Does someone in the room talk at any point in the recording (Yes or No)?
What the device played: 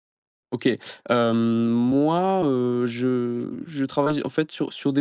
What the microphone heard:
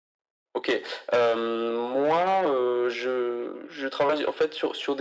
No